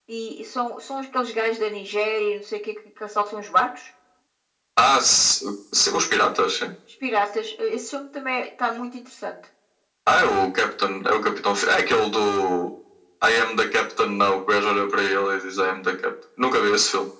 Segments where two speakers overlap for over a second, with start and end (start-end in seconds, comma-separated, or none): none